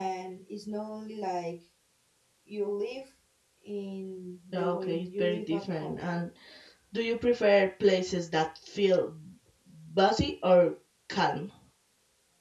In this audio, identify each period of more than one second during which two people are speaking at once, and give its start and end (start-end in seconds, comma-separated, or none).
4.5-6.0